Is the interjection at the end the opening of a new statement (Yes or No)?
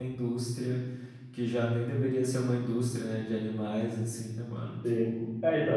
Yes